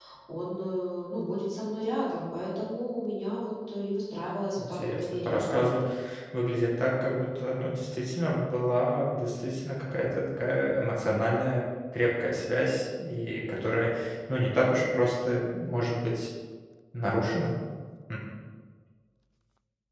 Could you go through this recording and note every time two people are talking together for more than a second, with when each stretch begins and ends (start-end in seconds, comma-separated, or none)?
4.6-5.8